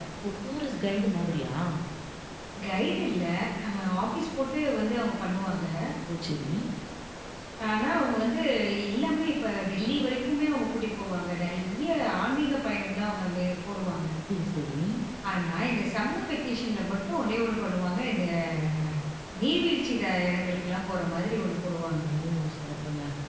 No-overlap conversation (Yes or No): Yes